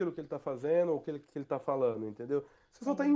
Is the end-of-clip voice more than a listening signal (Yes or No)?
No